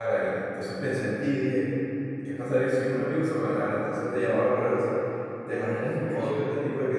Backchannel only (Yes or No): Yes